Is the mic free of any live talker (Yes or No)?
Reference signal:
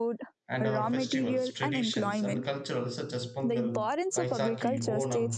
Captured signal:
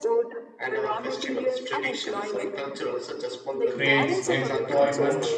No